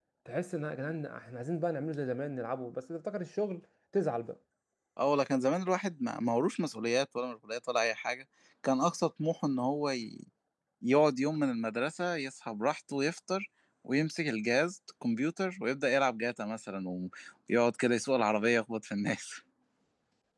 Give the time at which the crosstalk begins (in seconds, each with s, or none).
none